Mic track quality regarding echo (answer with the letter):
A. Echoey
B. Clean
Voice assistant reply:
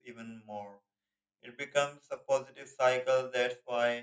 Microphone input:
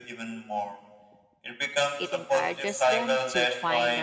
A